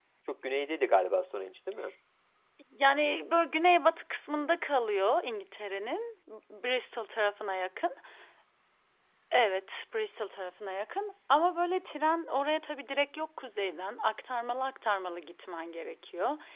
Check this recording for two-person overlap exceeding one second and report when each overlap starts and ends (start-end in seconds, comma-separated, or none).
none